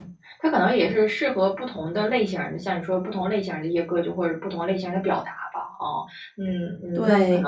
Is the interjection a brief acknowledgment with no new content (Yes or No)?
No